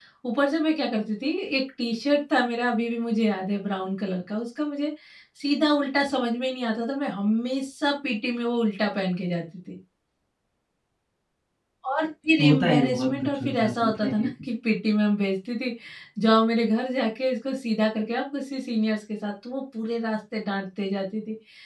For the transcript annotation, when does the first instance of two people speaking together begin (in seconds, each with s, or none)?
12.4 s